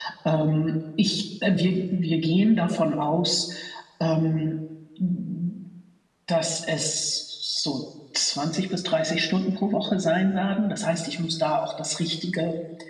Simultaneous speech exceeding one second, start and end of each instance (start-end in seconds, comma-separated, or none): none